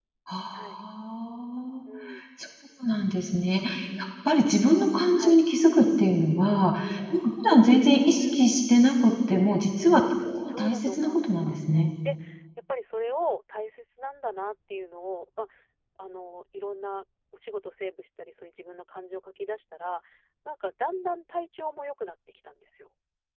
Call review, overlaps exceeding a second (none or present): present